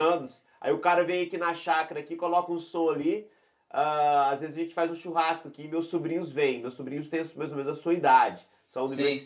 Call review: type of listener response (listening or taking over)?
listening